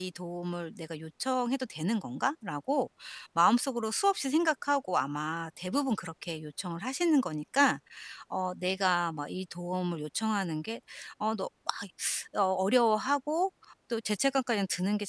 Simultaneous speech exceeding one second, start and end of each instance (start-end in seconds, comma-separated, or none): none